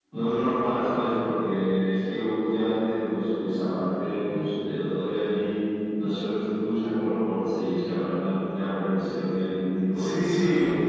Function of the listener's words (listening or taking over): taking over